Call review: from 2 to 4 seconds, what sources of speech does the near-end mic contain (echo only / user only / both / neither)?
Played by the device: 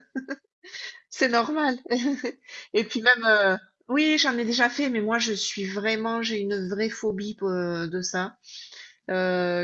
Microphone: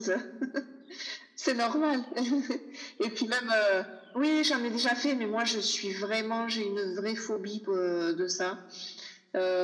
echo only